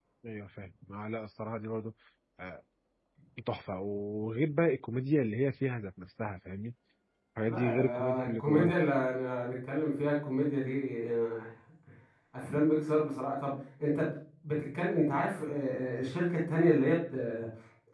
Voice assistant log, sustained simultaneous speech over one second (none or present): present